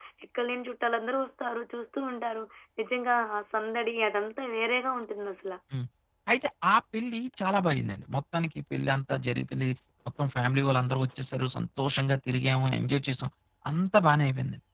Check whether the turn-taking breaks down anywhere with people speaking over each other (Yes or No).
No